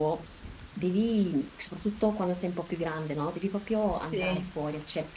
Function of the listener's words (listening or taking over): listening